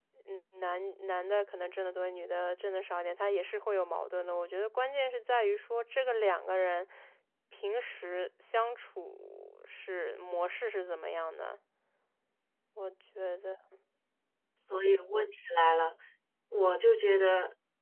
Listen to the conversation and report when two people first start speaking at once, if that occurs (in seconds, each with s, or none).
none